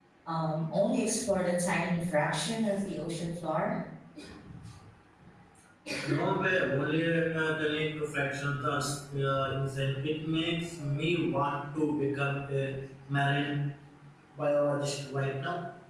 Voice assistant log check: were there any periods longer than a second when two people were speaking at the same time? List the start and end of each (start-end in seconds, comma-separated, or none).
none